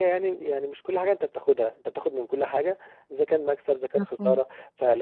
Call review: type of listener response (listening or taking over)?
listening